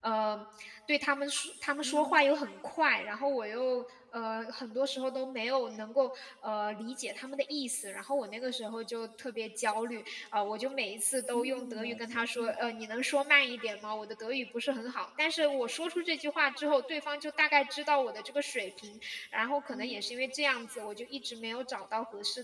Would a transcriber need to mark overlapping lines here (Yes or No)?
Yes